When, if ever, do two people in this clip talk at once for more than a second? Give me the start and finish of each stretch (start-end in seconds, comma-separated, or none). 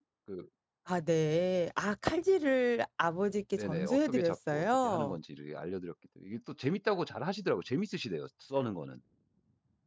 3.5-5.2